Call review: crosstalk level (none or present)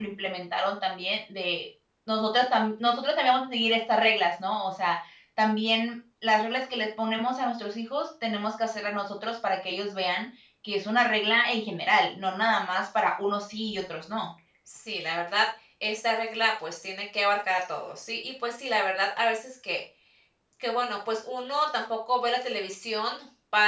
none